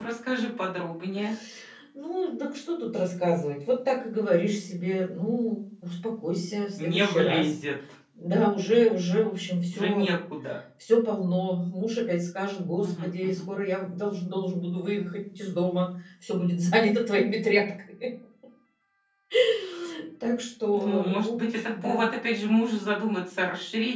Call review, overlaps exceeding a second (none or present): present